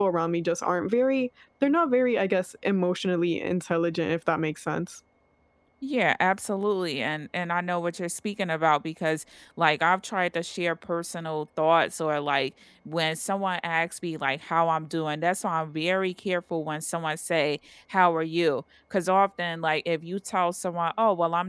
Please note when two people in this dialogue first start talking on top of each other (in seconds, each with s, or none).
none